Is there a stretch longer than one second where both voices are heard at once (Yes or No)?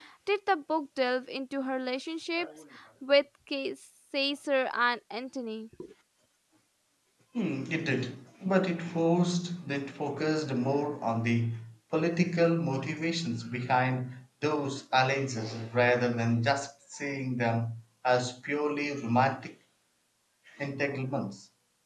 No